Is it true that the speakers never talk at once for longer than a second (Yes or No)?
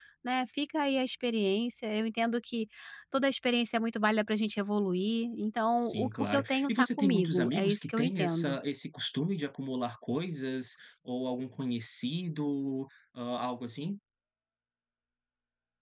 No